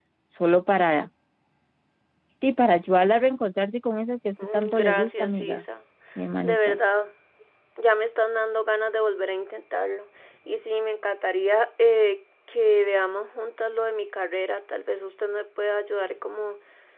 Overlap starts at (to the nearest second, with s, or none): 4 s